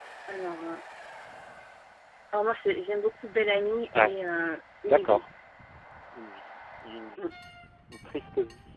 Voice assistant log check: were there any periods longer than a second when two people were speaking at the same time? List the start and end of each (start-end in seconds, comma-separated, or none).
none